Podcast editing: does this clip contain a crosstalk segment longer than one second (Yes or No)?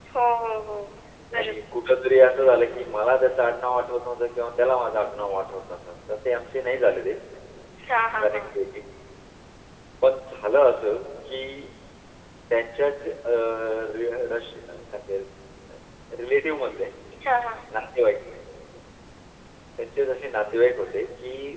No